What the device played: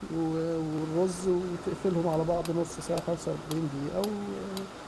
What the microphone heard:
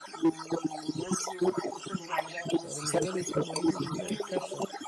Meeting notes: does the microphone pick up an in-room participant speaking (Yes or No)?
Yes